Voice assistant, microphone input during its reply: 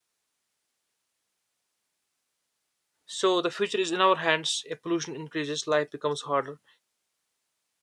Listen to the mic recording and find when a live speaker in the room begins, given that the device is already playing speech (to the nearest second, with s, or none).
3 s